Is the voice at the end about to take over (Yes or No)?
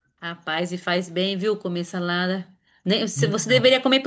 No